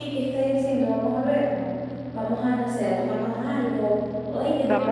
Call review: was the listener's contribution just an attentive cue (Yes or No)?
No